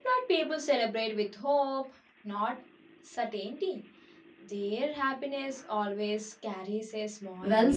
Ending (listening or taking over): taking over